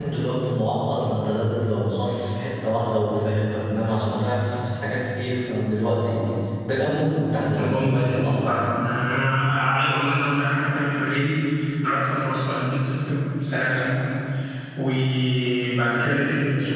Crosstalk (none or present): present